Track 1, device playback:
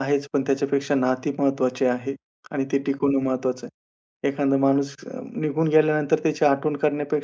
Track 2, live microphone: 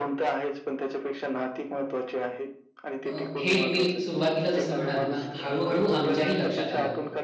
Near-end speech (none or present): present